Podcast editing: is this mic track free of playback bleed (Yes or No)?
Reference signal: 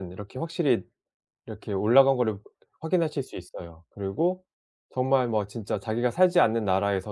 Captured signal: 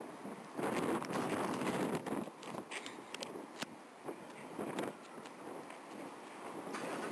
Yes